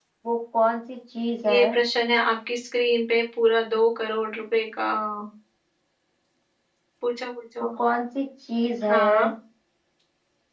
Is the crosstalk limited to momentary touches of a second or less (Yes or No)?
Yes